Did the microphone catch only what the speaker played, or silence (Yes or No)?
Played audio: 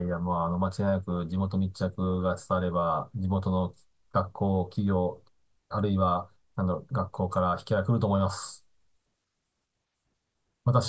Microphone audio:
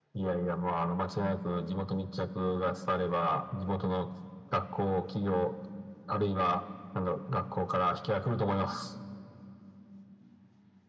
Yes